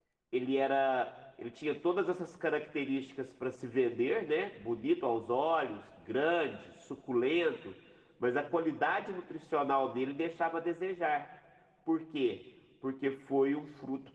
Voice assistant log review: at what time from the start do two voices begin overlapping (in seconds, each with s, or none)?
none